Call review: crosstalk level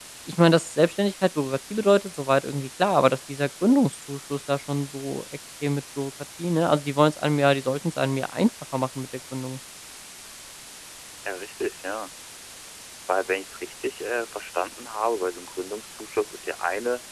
none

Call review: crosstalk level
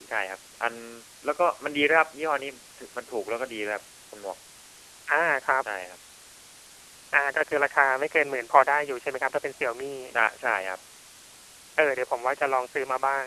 none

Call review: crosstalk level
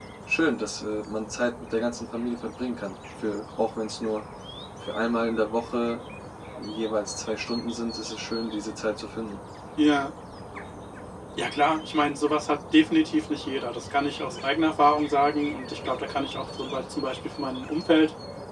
none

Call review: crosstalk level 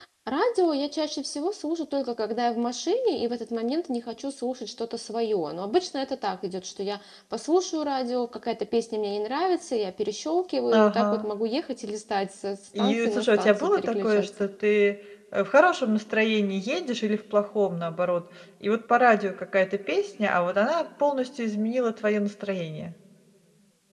present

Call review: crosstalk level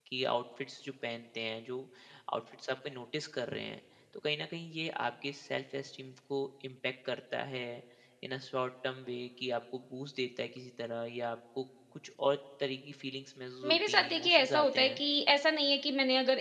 present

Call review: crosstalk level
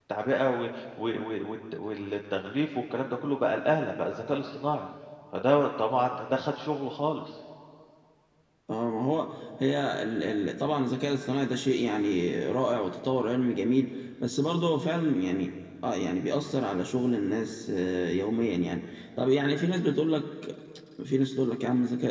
none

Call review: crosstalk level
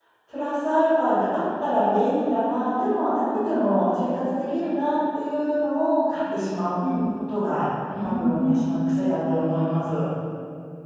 present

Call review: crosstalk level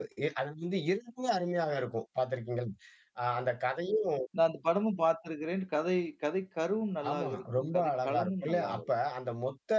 present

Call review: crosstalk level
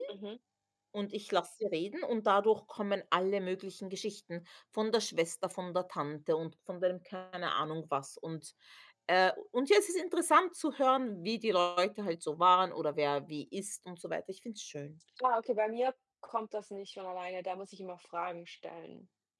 none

